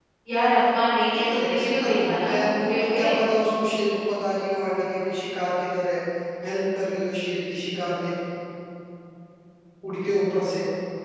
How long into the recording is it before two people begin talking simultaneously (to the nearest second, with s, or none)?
1 s